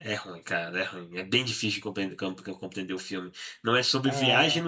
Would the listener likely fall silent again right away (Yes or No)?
Yes